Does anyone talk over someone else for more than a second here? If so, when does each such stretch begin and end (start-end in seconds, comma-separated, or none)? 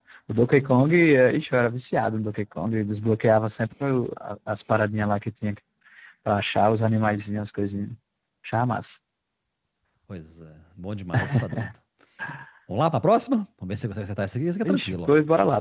none